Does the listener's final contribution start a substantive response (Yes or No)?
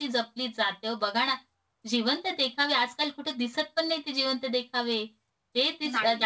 No